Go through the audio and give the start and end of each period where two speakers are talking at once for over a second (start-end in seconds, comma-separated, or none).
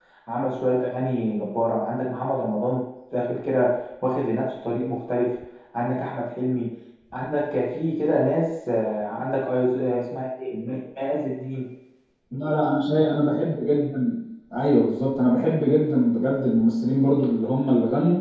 none